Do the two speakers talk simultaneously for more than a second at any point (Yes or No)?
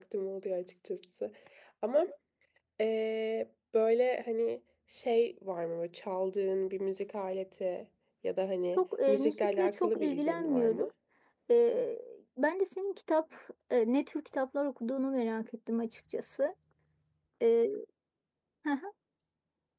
Yes